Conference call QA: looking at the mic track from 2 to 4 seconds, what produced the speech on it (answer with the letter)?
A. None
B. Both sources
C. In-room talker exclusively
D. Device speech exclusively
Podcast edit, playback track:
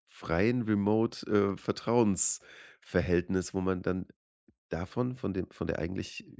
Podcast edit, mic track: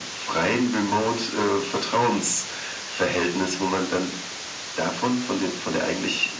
D